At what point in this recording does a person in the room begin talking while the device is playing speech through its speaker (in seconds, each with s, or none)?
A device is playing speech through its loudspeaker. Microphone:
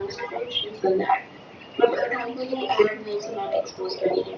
none